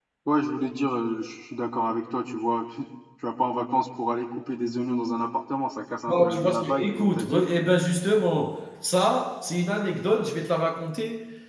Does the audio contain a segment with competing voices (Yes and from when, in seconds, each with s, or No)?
Yes, from 6.1 s